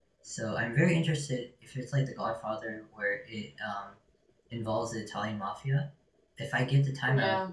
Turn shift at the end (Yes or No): No